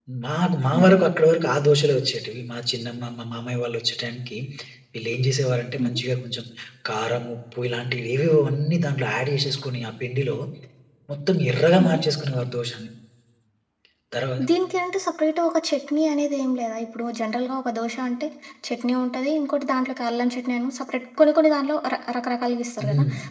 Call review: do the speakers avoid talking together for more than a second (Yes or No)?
Yes